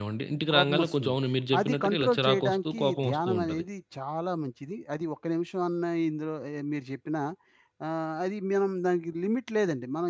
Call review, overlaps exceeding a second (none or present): present